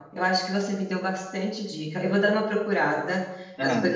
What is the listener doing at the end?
listening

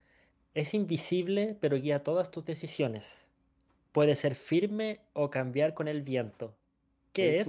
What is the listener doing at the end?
taking over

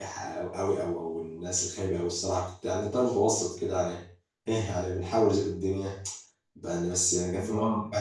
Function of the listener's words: listening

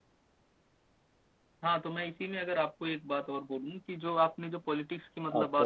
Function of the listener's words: listening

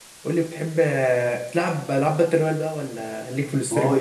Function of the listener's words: taking over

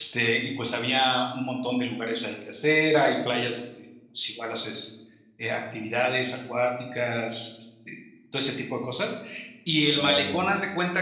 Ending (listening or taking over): listening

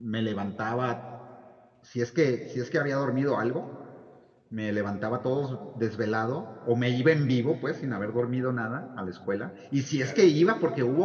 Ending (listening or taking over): listening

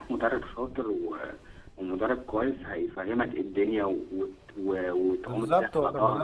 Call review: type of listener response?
taking over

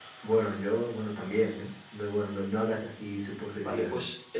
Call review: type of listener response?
taking over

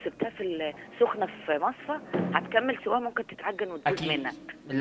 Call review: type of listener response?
taking over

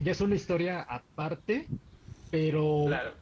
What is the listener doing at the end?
listening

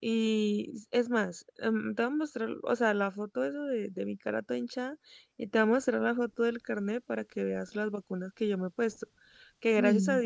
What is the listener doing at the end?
listening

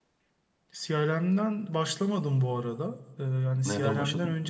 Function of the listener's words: listening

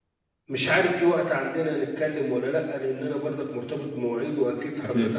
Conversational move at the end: listening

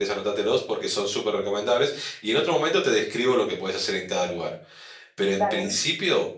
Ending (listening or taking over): listening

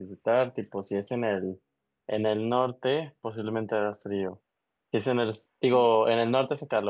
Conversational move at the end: listening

